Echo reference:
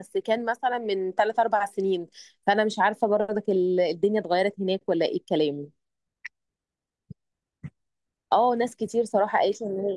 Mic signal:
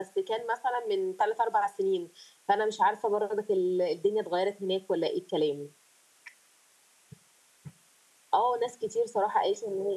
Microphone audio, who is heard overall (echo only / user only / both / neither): echo only